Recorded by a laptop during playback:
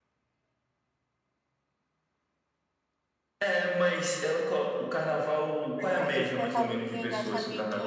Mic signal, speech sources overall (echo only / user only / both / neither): both